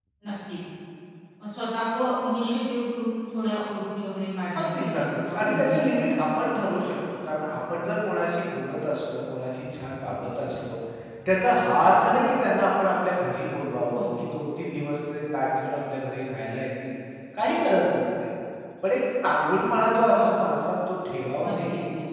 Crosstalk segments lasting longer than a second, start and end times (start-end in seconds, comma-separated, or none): 4.6-6.0